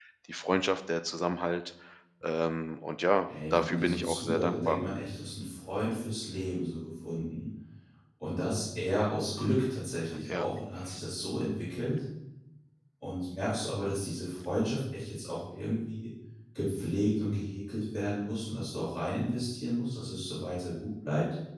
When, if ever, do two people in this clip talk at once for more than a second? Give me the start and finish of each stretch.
3.5-4.8

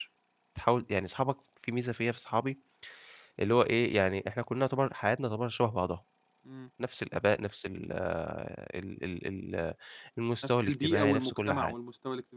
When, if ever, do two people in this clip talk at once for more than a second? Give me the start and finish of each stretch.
10.4-11.7

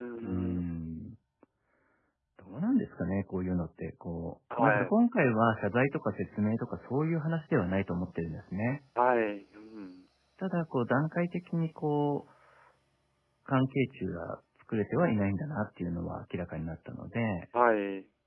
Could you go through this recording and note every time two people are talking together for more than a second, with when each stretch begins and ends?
none

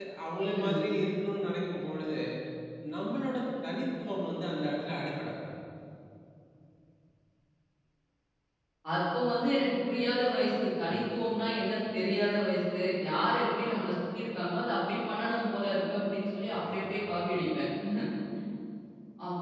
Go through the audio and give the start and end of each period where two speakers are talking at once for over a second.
none

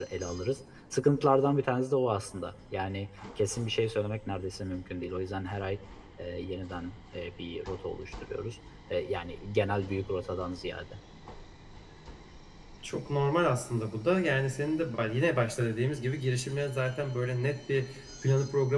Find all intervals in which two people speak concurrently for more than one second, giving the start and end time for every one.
none

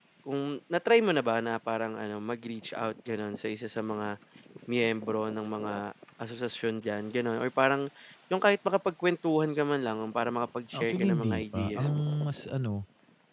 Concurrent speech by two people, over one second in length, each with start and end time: 10.7-12.0

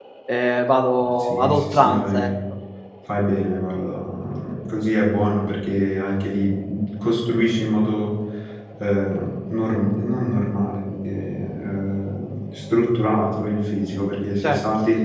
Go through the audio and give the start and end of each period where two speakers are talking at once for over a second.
1.0-2.3

